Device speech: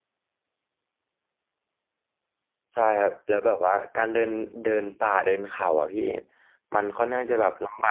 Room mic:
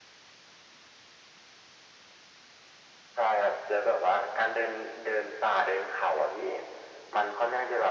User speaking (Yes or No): No